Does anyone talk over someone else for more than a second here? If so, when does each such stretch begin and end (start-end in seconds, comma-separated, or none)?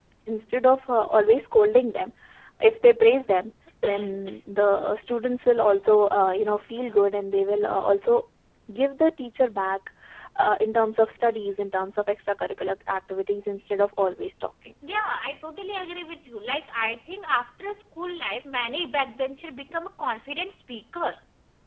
none